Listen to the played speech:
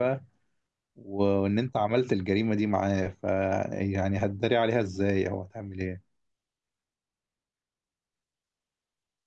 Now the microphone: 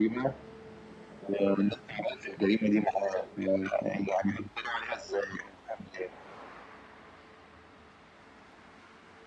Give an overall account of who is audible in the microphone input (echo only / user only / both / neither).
echo only